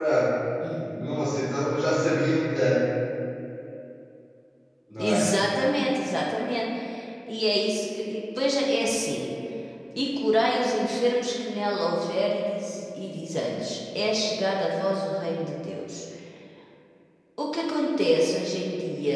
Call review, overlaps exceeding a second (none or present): none